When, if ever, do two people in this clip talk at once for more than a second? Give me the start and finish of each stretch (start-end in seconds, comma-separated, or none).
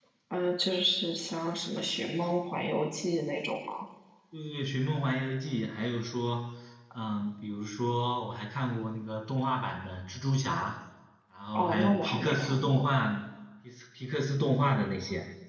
11.6-12.9